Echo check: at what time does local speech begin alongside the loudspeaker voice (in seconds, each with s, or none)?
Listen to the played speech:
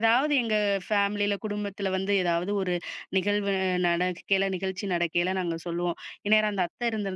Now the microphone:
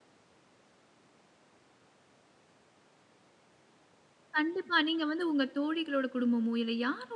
4.4 s